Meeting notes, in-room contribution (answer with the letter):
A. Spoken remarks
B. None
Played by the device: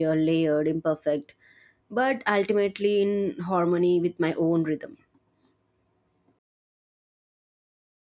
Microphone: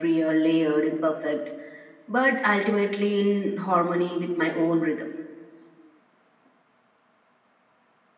B